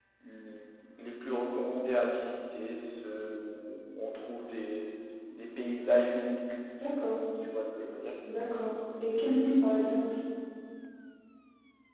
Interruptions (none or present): none